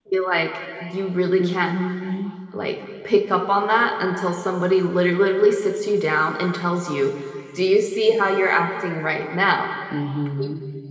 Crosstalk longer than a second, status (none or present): none